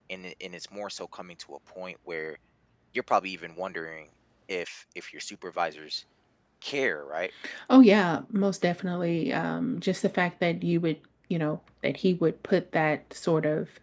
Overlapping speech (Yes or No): No